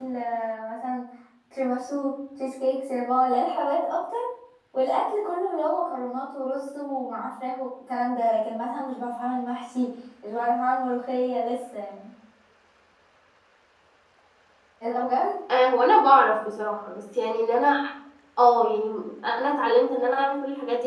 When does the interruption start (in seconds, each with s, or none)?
none